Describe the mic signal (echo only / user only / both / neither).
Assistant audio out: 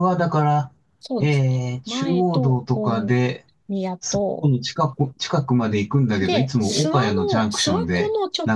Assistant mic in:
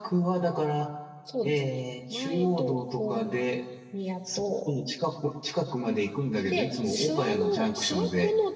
echo only